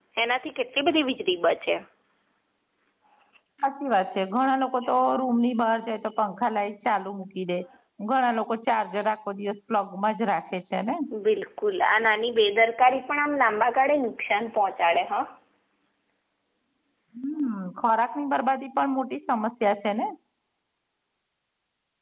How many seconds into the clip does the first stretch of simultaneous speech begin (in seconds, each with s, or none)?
none